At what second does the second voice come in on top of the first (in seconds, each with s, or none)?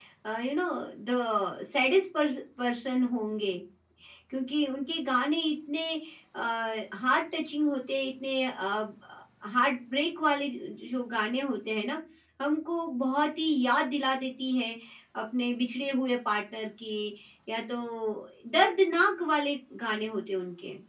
none